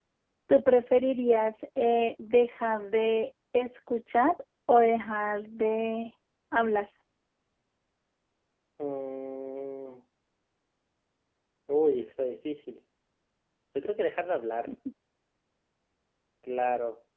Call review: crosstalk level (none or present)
none